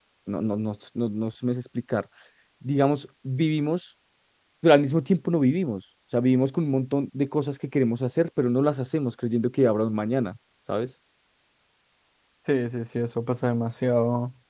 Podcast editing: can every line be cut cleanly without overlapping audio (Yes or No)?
Yes